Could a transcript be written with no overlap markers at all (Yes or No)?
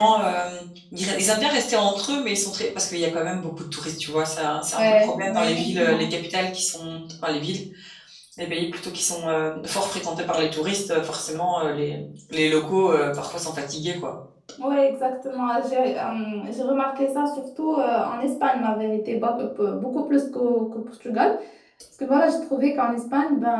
No